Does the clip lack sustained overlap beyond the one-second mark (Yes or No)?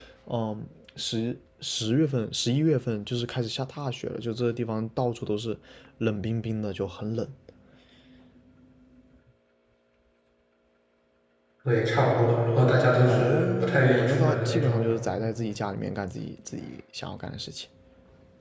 No